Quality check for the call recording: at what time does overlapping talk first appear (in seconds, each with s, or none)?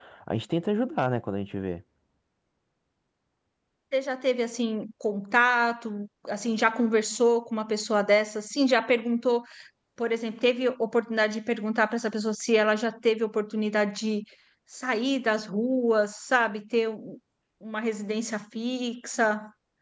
none